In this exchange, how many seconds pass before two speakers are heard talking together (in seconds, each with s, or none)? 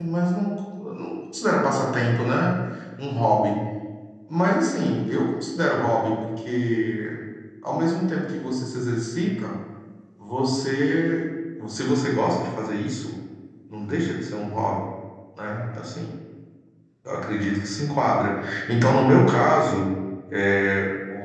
none